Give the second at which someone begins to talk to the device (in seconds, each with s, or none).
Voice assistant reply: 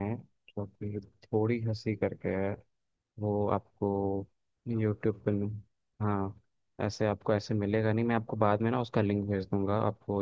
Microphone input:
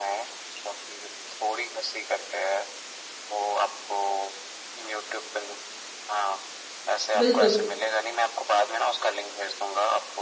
7.2 s